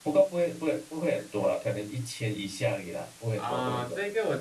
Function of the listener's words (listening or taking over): taking over